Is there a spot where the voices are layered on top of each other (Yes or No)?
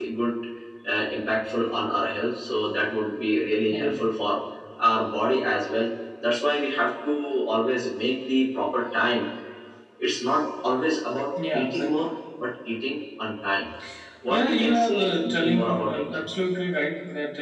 Yes